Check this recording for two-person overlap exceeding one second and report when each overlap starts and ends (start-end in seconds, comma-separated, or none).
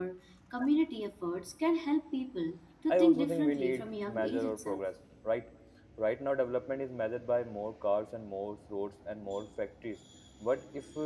2.9-4.8